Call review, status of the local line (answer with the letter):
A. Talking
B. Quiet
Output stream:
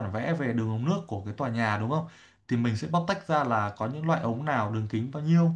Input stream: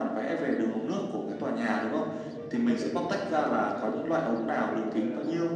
A